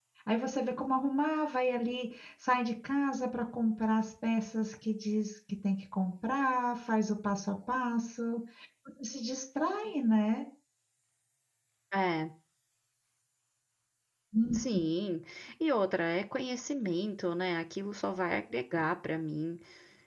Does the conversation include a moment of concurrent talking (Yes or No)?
No